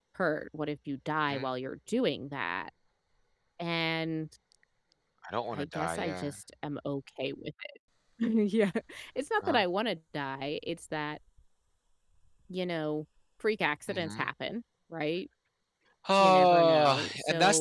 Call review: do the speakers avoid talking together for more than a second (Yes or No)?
No